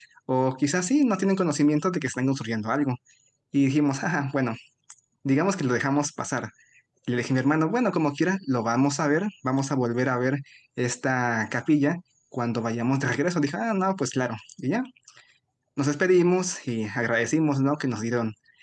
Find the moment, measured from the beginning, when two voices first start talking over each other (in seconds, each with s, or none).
none